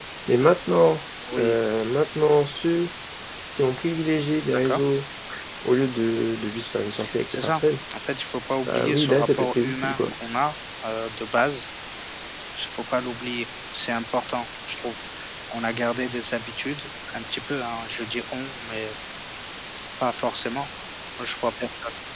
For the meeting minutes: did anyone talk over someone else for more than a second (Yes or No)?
Yes